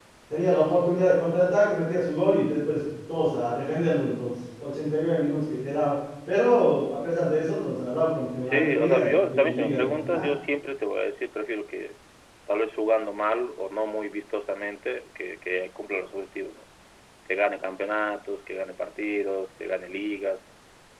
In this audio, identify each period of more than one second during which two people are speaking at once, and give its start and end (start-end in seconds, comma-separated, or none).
8.4-10.3